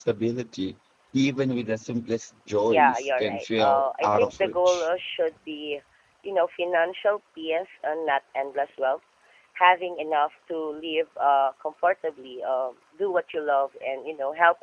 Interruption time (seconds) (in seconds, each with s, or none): 2.6 s